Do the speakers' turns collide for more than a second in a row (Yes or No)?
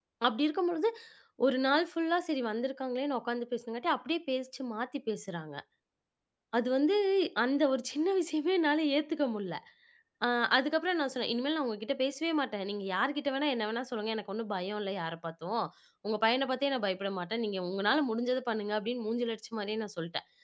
No